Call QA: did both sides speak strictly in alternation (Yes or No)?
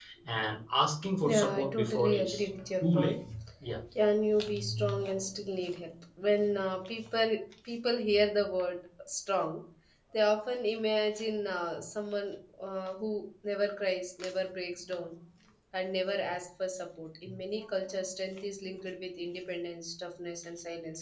No